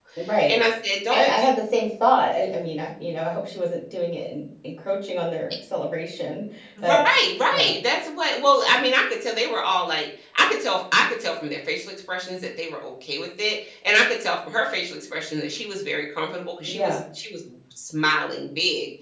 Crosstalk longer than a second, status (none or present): none